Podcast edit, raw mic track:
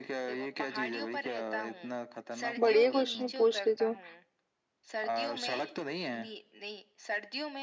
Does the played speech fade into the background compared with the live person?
Yes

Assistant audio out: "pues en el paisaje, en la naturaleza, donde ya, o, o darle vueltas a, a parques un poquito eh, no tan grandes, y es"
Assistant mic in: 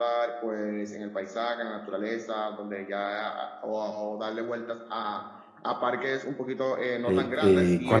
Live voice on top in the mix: Yes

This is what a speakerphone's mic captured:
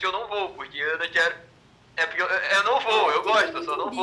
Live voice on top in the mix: No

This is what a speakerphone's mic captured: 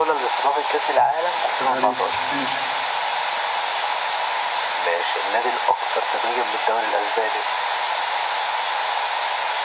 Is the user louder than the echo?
No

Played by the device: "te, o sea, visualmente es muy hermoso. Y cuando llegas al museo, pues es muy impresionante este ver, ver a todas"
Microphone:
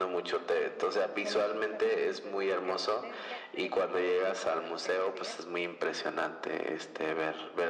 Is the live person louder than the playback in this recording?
No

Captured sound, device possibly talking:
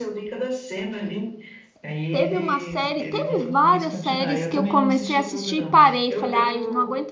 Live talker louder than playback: Yes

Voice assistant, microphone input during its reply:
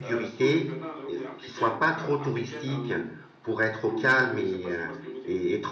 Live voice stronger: Yes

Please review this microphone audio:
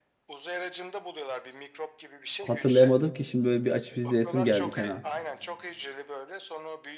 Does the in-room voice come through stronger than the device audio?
Yes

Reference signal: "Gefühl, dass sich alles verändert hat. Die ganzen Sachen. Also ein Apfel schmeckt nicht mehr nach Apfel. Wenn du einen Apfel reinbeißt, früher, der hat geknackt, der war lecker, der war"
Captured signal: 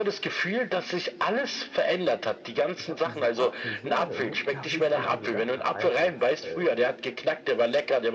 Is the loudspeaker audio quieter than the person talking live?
No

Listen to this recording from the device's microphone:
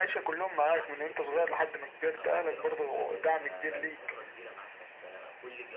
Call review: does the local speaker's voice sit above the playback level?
No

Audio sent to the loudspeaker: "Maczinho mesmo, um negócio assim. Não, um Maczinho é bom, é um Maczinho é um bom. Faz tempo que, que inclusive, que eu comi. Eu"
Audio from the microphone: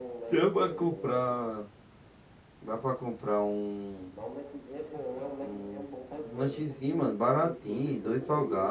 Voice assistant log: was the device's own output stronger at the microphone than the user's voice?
No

